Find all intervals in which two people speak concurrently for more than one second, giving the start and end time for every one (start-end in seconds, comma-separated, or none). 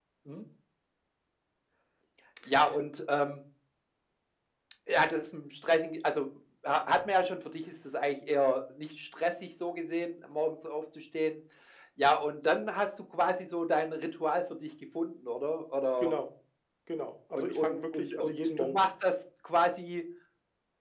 17.4-18.8